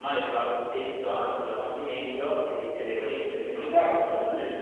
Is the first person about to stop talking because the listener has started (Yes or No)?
Yes